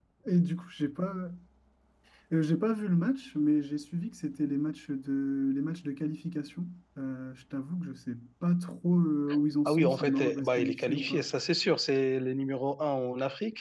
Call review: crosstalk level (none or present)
present